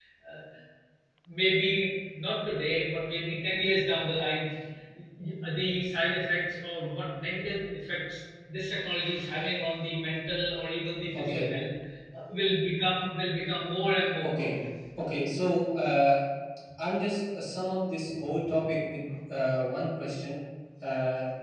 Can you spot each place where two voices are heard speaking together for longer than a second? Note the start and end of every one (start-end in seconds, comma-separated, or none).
none